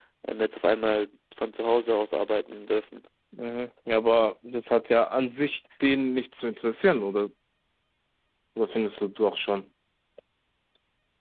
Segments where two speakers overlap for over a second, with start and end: none

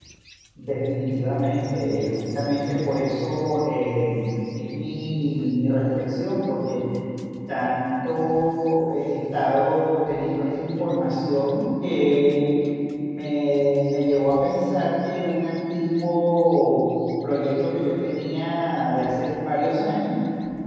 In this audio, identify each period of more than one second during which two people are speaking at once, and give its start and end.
none

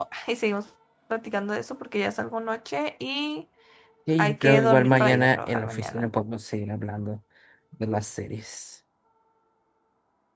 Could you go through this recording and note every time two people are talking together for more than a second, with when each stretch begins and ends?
4.2-6.1

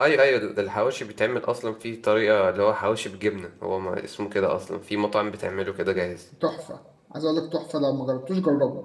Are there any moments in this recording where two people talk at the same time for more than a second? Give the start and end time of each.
none

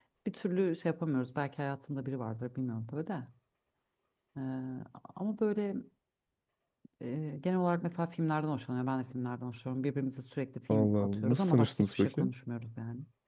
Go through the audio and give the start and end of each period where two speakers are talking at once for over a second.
10.7-12.3

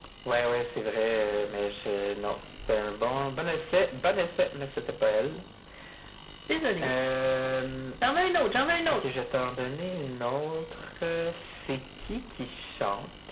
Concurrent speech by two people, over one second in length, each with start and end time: none

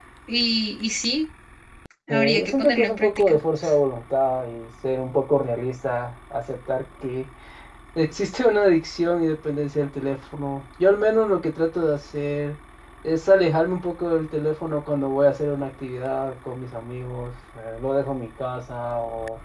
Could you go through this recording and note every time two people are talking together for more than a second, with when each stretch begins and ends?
2.1-3.4

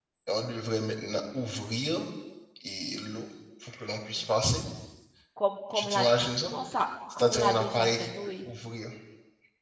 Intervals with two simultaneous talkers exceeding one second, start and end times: 7.2-8.5

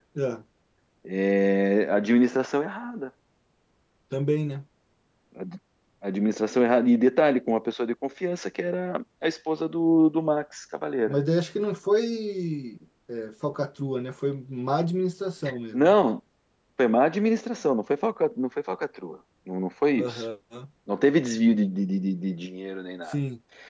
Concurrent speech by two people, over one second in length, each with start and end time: none

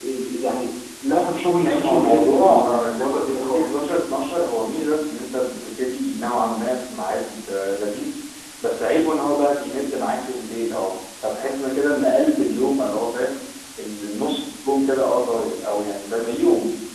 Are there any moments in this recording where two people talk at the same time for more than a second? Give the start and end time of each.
1.6-3.8

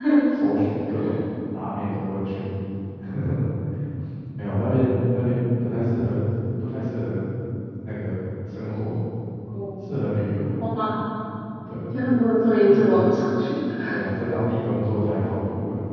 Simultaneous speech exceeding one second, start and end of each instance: none

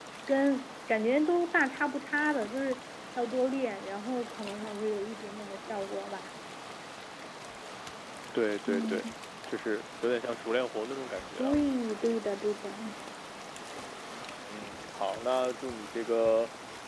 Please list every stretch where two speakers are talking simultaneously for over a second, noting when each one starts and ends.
none

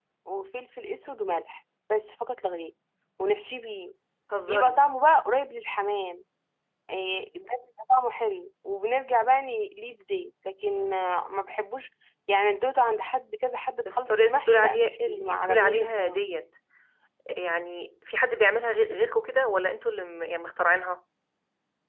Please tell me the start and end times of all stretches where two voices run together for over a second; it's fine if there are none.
13.9-16.2

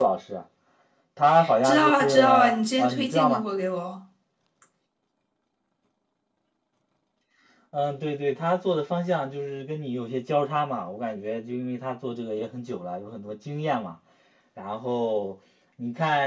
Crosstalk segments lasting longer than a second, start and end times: 1.6-3.4

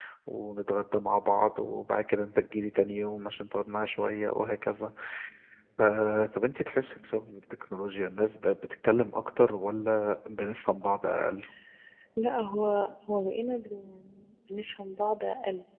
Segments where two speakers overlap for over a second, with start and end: none

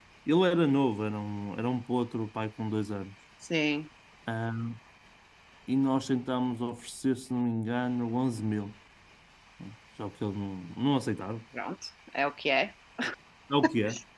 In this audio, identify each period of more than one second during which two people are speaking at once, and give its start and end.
none

